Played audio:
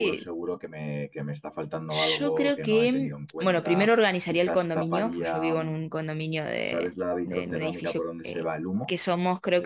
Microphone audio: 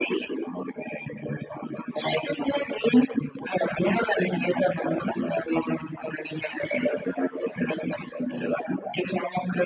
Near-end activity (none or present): none